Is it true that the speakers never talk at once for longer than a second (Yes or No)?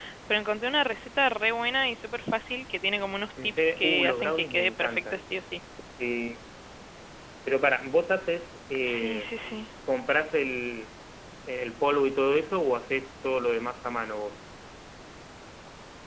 No